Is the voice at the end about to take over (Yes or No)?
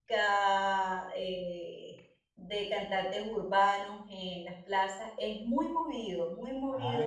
Yes